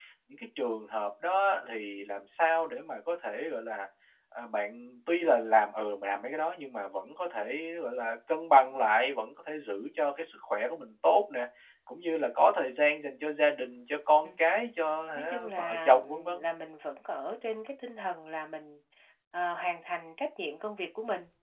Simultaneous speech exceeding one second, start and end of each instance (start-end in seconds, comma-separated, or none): 15.2-16.4